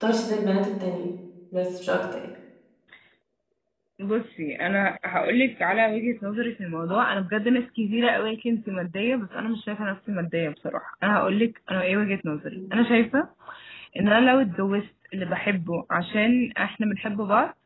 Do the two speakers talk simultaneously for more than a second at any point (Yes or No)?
No